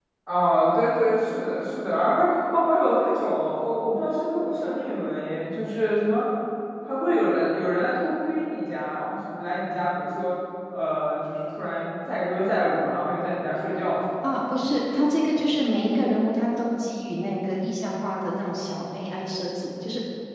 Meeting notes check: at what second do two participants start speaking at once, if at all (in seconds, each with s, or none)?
none